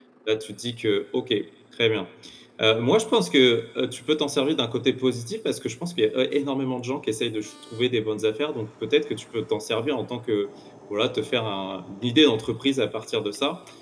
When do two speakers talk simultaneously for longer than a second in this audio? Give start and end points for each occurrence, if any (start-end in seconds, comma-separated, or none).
none